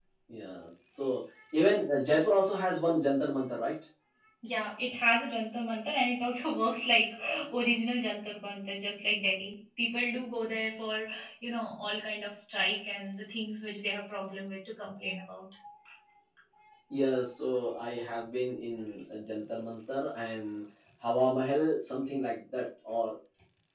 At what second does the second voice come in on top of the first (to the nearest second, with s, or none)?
none